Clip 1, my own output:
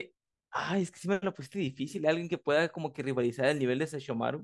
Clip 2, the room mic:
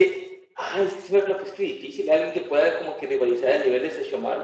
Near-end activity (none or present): none